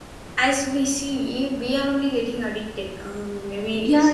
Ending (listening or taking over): taking over